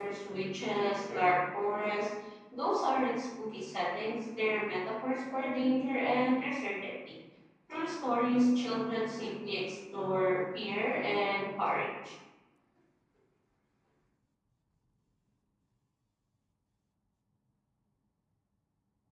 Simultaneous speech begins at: none

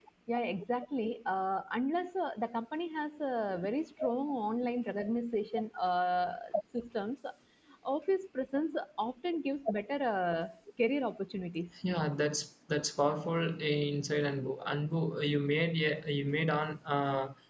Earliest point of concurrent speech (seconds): none

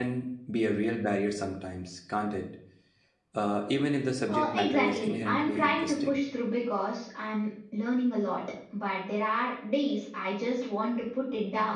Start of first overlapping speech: 4 s

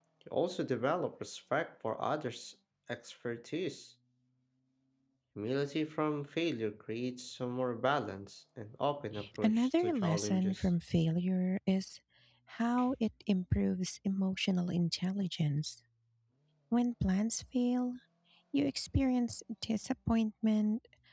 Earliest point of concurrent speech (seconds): 9 s

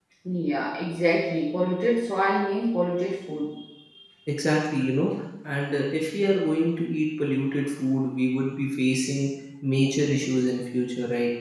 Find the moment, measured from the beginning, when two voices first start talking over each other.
none

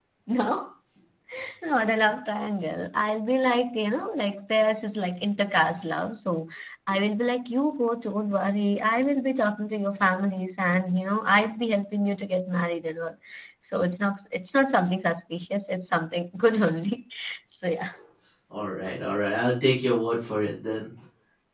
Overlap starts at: none

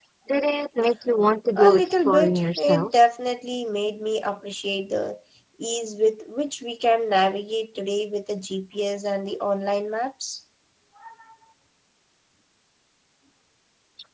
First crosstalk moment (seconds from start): 2 s

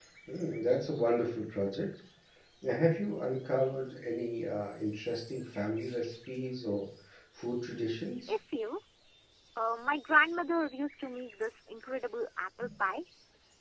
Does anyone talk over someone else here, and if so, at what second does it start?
none

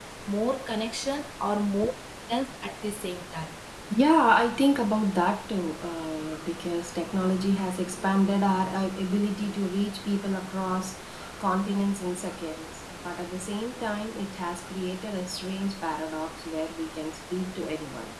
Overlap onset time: none

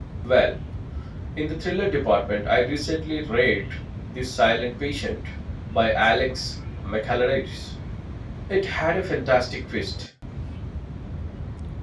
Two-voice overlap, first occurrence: none

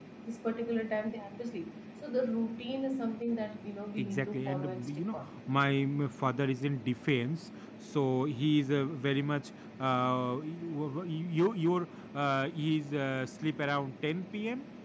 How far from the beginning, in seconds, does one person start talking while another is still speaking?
4 s

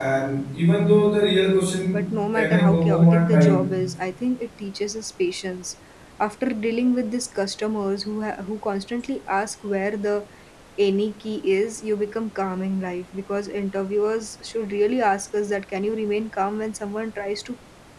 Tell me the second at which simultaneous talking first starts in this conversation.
2 s

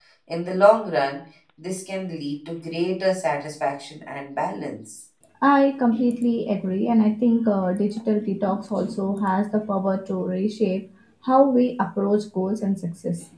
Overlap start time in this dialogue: none

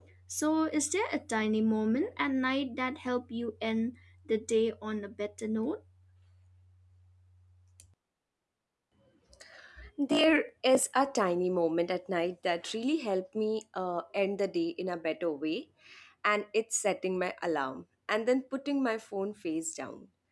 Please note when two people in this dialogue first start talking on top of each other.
none

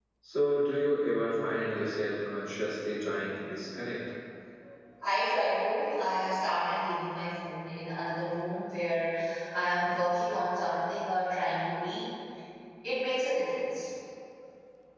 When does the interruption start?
none

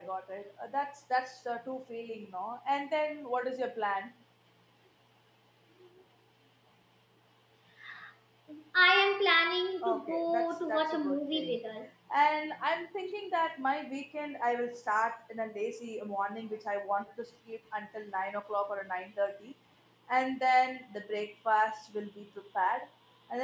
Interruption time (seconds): 10 s

